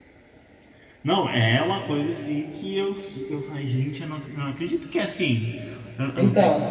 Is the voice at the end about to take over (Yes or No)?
No